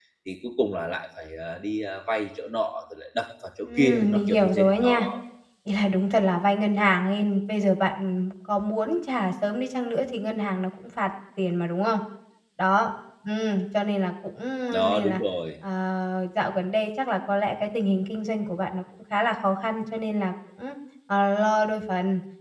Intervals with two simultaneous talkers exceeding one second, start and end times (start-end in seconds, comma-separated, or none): 3.7-5.1